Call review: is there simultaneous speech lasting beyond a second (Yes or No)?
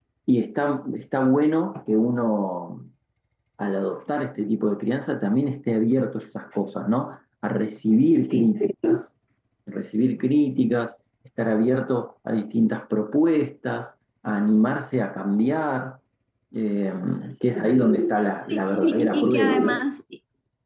Yes